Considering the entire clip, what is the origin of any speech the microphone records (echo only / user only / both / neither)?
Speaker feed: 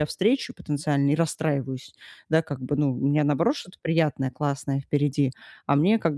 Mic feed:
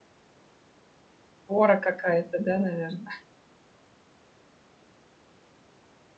user only